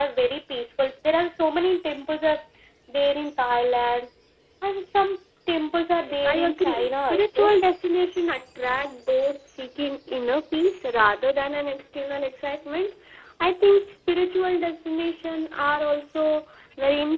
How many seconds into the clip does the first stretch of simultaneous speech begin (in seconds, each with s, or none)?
6.0 s